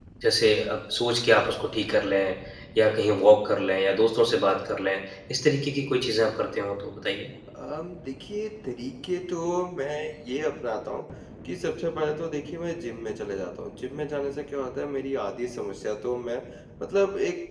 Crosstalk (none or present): none